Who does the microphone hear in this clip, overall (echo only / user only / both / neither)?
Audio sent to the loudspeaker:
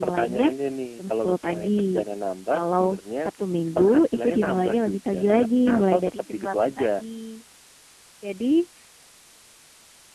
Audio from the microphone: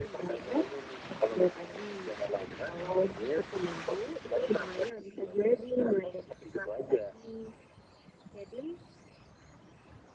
echo only